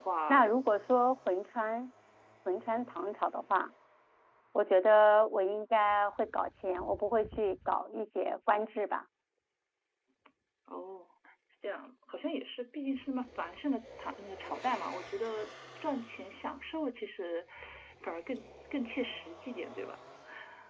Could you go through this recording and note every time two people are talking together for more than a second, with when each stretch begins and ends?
none

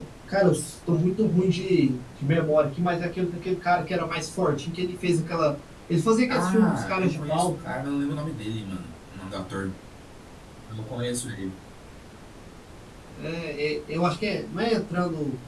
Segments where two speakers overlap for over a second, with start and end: 6.3-7.5

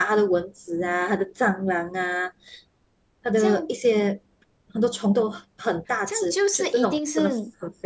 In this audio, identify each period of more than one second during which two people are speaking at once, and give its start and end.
6.1-7.3

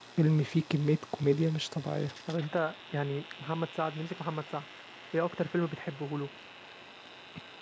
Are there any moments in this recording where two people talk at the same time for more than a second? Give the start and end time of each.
none

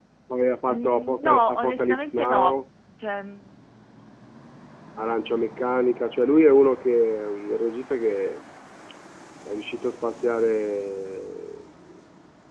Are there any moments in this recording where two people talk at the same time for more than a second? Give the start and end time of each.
0.7-2.6

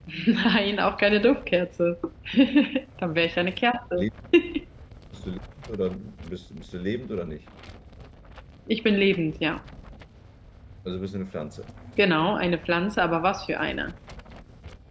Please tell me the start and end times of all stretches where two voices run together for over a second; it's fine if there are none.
none

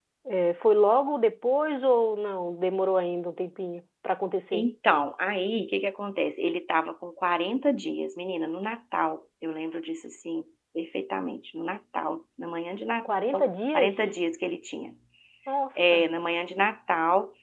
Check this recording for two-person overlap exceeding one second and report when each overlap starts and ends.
none

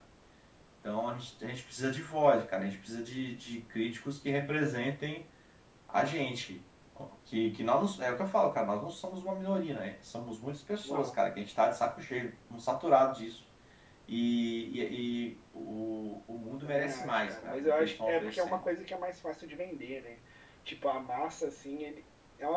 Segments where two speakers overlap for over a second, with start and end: 16.6-18.6

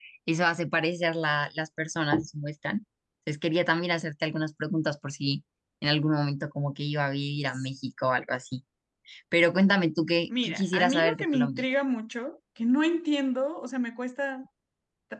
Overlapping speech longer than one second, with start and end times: 10.4-11.7

